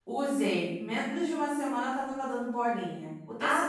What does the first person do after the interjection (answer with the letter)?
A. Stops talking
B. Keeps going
B